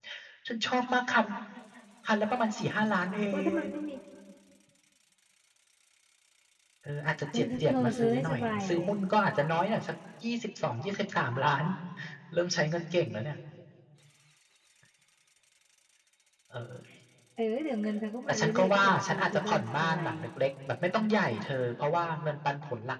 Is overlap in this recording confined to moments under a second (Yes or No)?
No